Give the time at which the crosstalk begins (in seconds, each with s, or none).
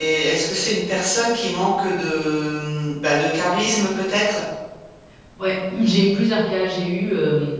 none